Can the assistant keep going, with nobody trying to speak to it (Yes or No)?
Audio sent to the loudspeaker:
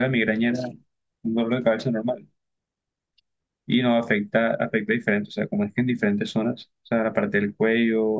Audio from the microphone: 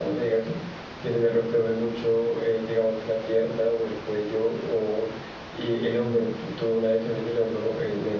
No